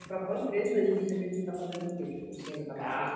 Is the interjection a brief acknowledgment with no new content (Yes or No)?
No